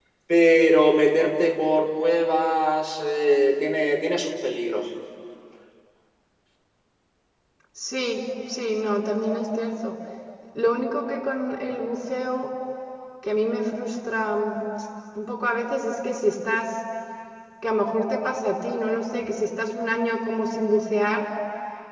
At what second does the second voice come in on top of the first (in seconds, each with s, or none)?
none